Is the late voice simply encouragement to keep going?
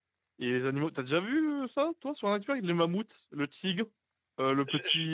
Yes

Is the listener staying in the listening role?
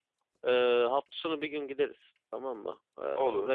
Yes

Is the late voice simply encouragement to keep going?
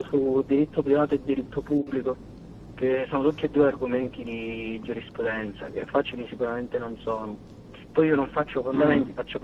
Yes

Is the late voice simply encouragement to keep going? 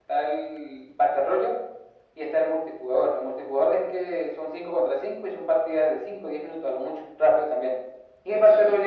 Yes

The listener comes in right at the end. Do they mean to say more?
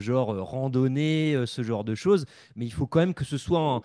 No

